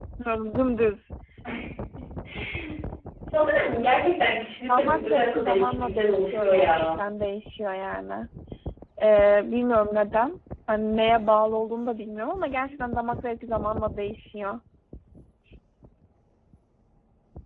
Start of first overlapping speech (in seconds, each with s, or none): 4.6 s